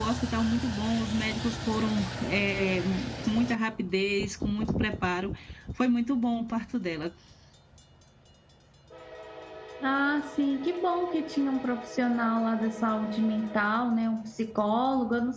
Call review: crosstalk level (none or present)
none